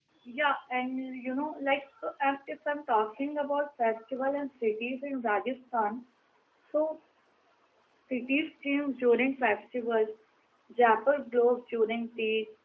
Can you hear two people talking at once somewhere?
No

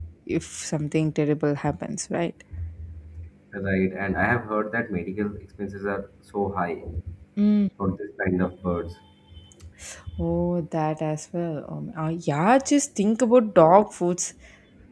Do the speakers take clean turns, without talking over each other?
Yes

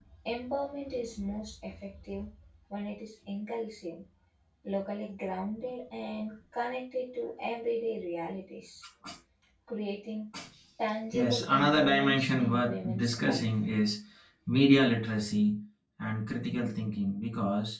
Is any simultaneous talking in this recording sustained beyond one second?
Yes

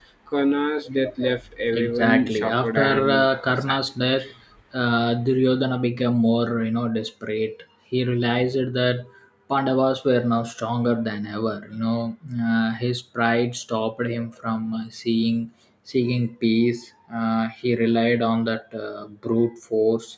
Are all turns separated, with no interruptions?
No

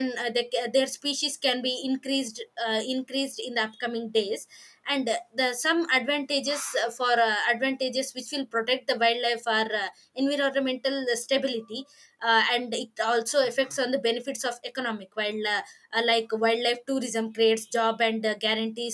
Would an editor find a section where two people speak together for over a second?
No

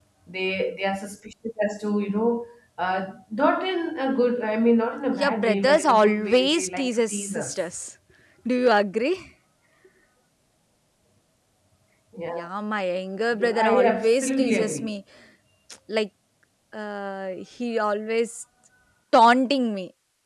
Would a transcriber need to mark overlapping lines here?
Yes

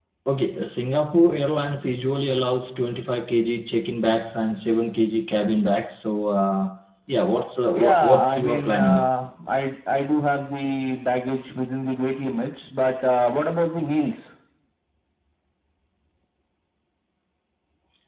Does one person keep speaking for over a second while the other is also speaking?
Yes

